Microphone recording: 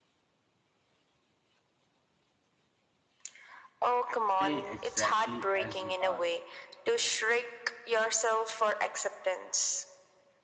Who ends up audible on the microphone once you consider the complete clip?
both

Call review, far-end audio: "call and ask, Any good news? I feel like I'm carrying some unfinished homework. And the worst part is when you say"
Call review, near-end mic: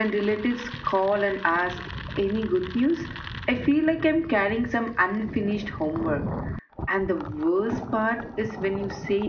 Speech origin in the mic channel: echo only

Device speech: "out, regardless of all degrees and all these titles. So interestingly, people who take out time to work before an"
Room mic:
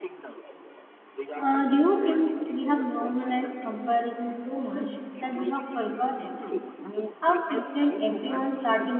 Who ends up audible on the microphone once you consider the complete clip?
both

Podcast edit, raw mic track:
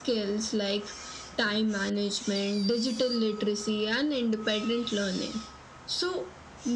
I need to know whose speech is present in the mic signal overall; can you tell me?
echo only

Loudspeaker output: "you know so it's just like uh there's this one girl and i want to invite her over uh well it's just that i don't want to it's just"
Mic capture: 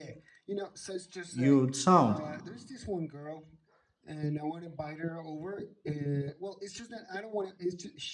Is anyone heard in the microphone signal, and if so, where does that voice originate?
both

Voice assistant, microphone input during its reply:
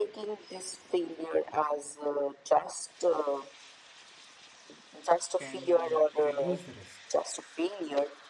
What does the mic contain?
both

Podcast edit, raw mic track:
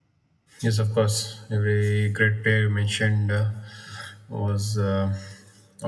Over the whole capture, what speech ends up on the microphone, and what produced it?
user only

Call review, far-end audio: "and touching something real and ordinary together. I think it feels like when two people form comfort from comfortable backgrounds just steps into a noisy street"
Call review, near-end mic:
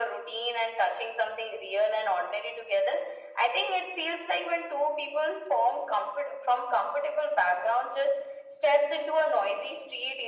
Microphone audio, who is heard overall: echo only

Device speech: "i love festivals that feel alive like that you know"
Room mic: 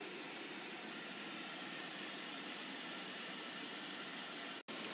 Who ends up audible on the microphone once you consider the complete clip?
neither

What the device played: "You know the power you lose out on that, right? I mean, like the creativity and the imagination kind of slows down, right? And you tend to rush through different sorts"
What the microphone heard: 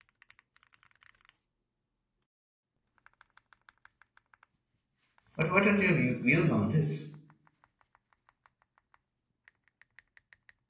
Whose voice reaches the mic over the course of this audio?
user only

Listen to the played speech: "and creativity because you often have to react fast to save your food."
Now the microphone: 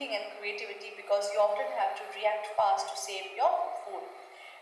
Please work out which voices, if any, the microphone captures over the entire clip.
echo only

